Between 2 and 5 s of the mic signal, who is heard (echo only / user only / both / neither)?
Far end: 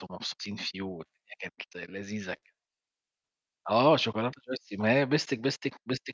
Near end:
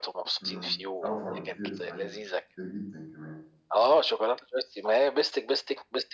both